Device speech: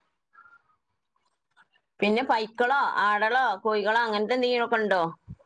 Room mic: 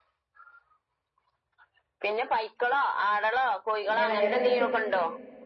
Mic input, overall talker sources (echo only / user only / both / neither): both